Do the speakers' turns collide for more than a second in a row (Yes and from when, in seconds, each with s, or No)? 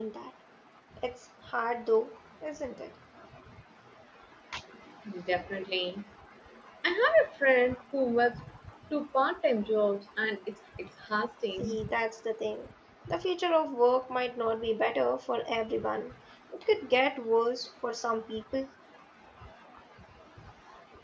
No